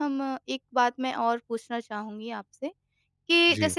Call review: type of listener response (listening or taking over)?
listening